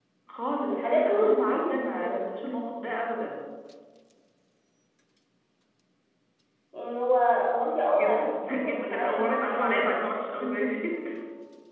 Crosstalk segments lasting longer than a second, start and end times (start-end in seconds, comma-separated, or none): 0.7-2.2, 7.9-10.0